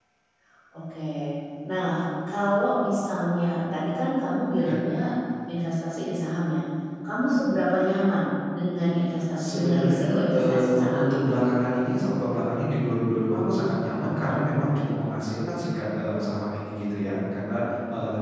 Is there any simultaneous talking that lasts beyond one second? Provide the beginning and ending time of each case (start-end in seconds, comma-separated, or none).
9.4-11.3